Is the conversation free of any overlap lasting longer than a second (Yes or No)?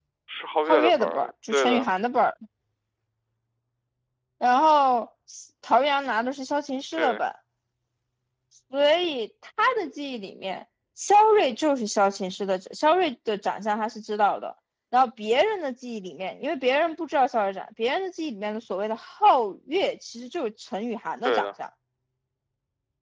No